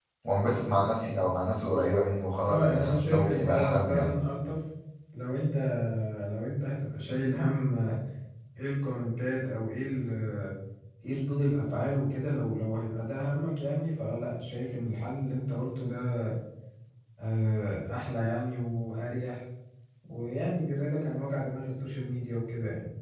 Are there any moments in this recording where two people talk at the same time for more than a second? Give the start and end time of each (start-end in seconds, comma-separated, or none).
2.5-4.1